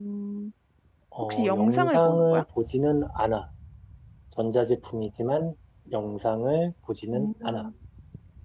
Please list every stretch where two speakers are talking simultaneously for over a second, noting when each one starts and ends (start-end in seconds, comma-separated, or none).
1.2-2.4